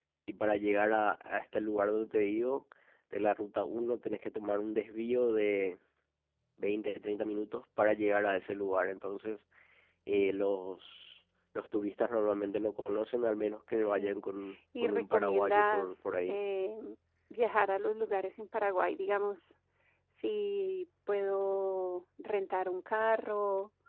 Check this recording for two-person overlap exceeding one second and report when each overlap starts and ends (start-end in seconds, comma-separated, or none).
14.8-16.4